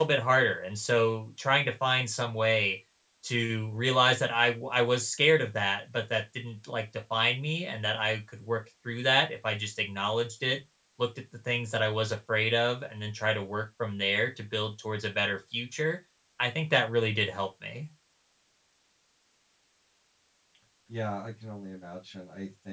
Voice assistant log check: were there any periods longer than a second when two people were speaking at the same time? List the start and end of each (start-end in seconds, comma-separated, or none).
none